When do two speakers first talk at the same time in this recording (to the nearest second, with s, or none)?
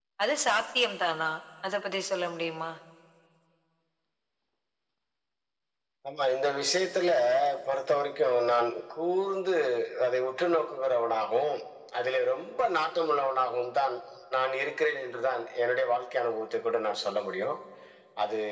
none